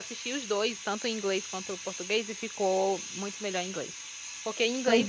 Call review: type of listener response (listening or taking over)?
listening